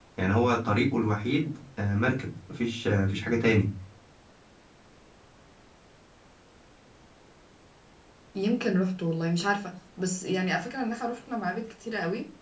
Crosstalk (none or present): none